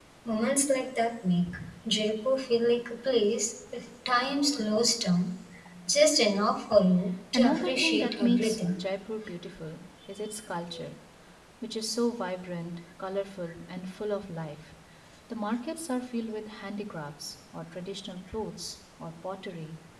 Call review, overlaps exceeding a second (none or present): present